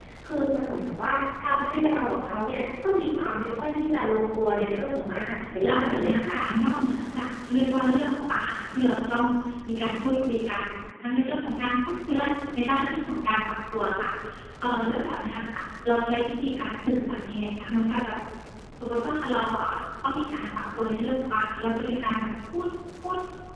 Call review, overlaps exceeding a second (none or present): present